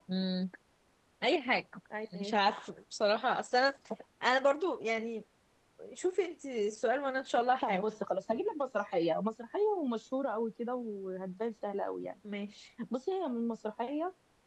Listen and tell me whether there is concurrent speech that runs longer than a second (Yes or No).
No